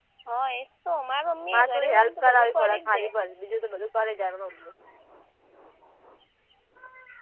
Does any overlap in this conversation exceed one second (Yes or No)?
Yes